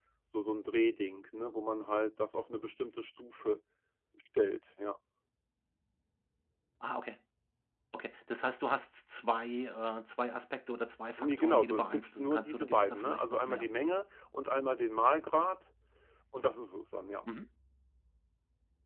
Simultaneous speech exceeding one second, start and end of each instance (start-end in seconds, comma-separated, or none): 11.2-13.7